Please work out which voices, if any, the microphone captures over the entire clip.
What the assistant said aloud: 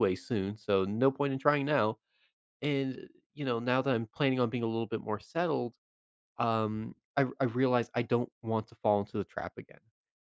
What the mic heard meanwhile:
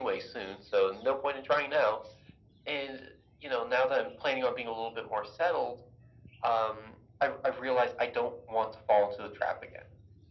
echo only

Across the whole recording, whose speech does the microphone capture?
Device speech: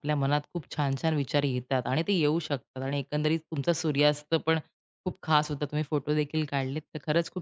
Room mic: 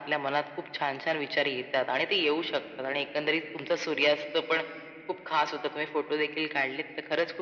echo only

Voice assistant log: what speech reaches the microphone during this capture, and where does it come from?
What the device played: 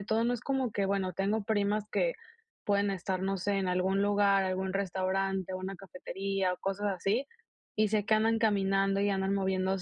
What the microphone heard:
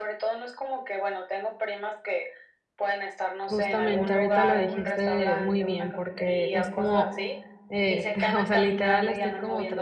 both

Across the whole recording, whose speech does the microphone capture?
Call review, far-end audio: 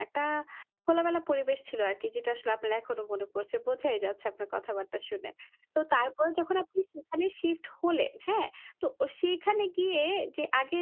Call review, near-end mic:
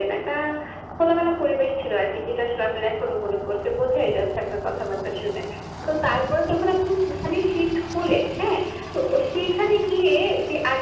echo only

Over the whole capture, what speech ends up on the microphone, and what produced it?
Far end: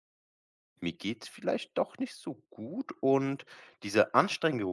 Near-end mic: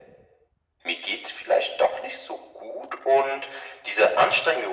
echo only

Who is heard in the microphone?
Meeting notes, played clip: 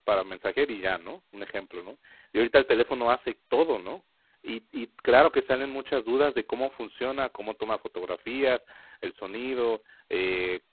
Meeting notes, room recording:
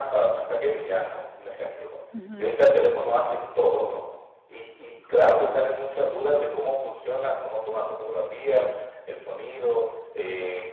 both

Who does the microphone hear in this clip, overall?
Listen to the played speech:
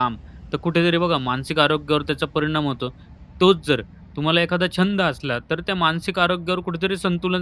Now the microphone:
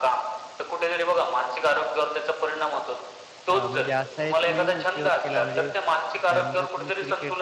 both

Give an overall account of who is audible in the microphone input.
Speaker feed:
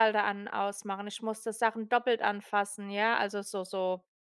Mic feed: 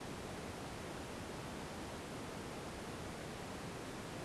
neither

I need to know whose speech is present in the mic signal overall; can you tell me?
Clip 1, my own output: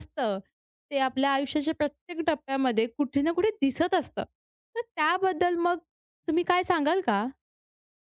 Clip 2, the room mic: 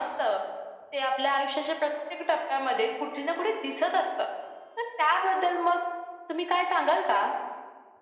echo only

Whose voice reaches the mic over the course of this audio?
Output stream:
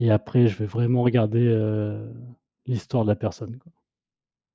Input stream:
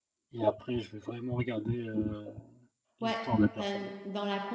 both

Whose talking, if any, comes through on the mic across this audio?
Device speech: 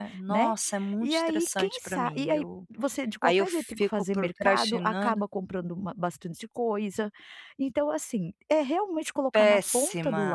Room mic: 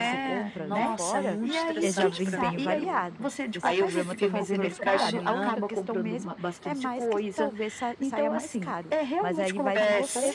both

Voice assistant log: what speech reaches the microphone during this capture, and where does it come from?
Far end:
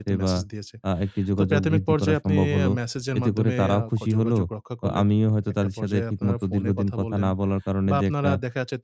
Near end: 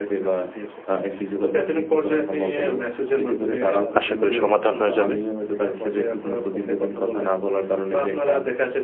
both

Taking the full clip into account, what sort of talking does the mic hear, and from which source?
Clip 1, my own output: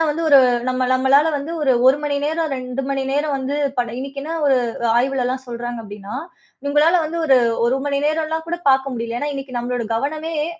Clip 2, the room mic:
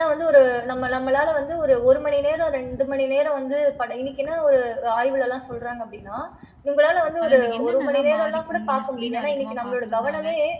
both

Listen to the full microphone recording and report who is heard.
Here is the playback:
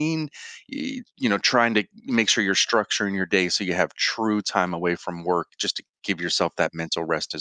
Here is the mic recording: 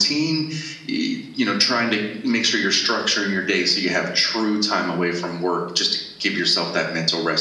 echo only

